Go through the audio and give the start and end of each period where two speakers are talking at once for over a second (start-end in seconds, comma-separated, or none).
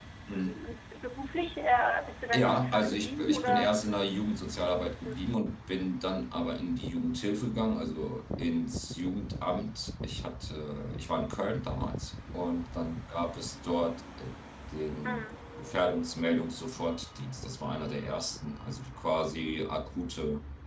2.4-3.8